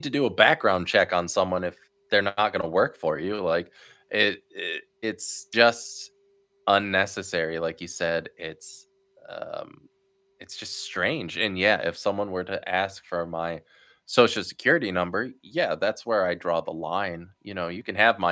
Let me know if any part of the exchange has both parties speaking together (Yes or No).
No